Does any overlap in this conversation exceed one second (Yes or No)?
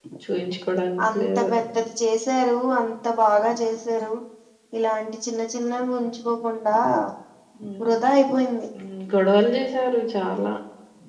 No